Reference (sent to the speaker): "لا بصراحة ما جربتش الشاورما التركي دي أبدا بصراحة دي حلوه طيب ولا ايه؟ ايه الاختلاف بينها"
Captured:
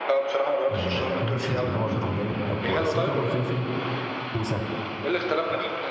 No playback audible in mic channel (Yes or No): No